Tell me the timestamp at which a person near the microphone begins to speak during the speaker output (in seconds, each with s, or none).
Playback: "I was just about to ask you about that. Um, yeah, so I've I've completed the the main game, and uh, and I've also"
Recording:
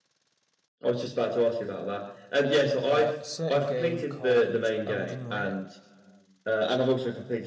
2.9 s